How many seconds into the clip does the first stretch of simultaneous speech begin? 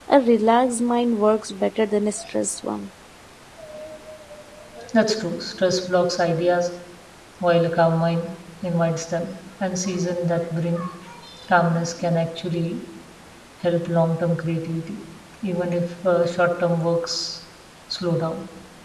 none

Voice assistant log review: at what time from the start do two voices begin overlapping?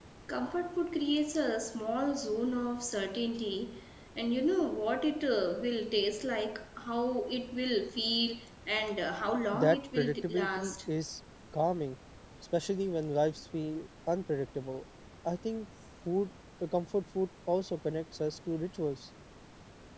9.5 s

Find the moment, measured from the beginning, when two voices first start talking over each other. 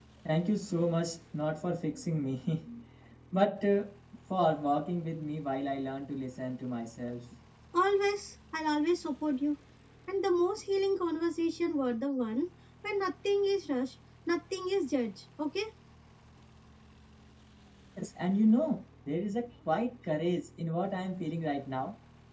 none

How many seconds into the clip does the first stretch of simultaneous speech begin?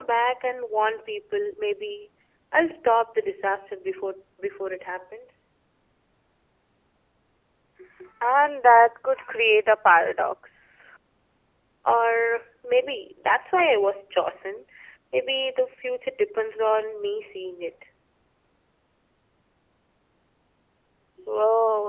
none

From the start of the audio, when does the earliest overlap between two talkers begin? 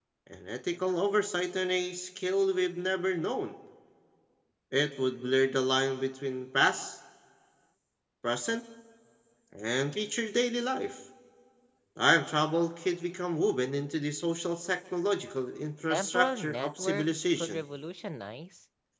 15.9 s

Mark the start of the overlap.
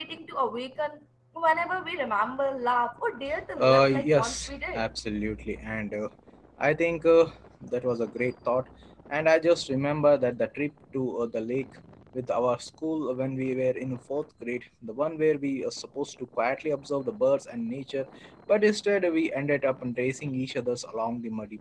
3.5 s

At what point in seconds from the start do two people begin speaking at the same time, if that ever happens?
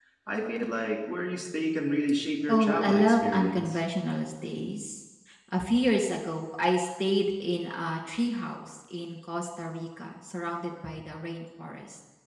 2.5 s

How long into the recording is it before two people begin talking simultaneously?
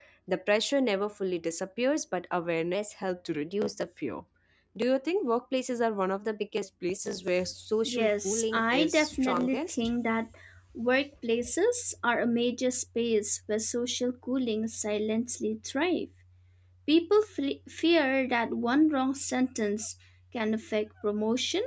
7.8 s

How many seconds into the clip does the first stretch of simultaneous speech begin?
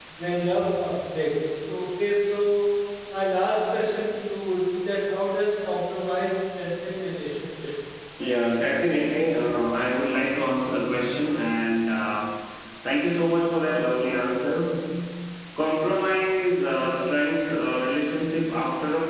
none

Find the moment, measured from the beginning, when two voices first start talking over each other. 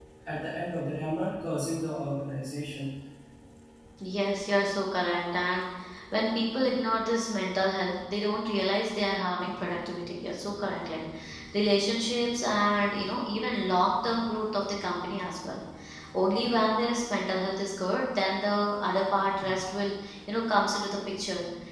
none

